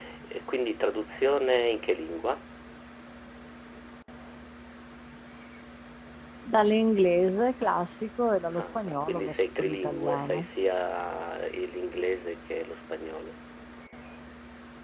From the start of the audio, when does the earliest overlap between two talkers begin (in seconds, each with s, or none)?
8.5 s